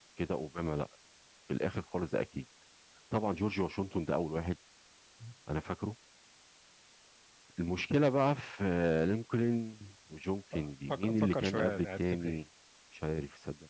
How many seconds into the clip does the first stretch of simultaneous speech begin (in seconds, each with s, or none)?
10.9 s